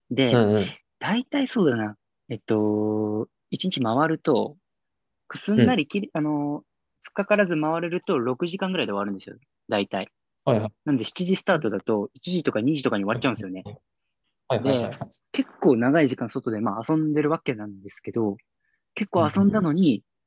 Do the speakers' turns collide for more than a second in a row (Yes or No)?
No